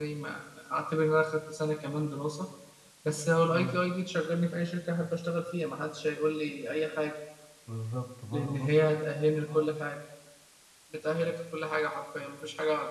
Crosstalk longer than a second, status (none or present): present